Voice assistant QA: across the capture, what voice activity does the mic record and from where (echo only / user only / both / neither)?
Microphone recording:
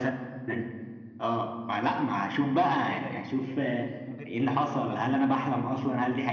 both